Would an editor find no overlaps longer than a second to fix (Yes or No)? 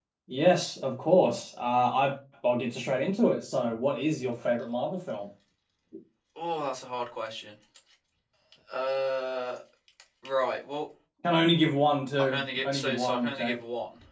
No